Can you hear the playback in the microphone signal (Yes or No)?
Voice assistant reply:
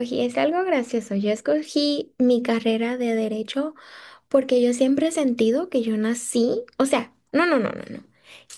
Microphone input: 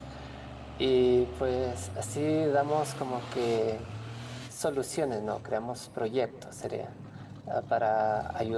No